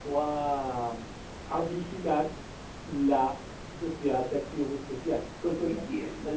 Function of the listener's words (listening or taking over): taking over